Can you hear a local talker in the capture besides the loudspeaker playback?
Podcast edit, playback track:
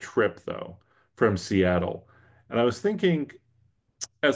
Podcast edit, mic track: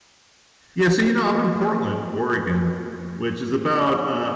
Yes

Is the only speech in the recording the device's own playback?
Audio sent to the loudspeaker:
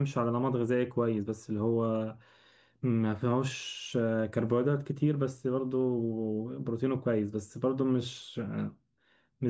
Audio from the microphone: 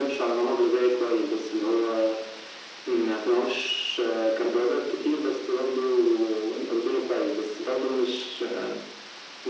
Yes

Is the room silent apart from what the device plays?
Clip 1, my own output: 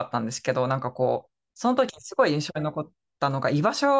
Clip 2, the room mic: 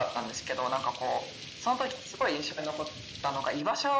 Yes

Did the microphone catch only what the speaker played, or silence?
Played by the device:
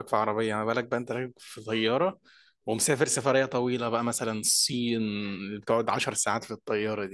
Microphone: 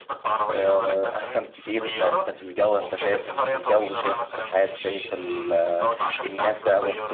No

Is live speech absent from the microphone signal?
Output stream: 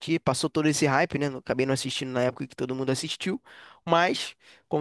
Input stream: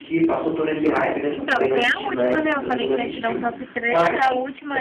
No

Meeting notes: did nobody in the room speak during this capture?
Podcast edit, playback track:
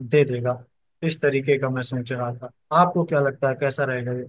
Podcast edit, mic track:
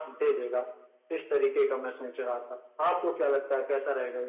Yes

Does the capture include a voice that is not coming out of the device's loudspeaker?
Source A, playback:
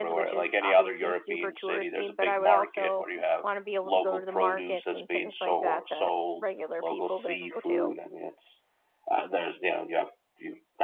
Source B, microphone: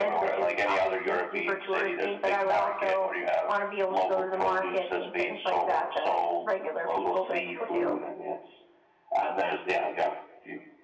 No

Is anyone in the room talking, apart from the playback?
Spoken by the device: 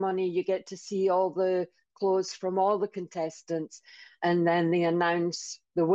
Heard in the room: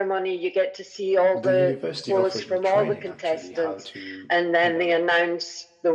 Yes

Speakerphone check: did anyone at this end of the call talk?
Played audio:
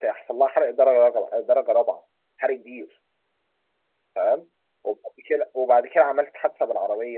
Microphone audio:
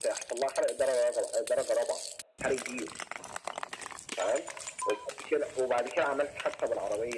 No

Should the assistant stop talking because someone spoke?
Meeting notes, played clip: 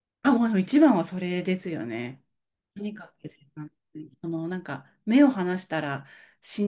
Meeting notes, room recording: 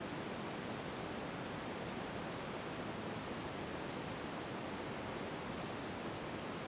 No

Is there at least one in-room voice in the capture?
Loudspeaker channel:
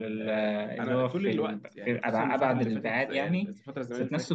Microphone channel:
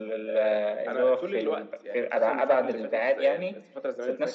No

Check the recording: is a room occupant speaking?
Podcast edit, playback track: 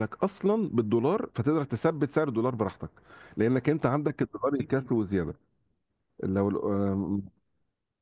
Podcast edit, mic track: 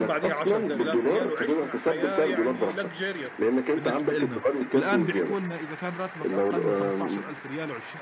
Yes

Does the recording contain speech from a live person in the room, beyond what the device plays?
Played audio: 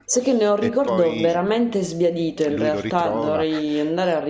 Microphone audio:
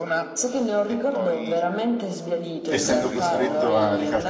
Yes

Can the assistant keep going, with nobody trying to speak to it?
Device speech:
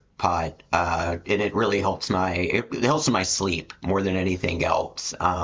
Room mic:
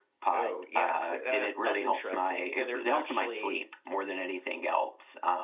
No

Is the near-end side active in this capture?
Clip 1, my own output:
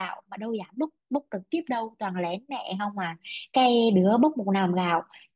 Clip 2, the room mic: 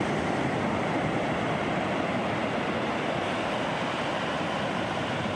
No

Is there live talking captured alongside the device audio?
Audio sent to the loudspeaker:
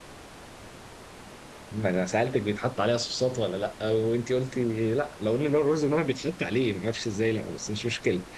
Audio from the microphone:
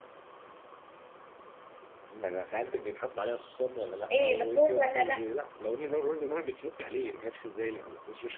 Yes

